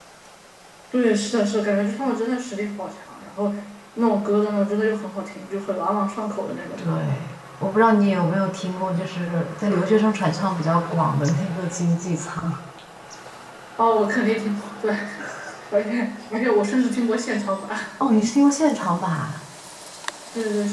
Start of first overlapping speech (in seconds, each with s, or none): none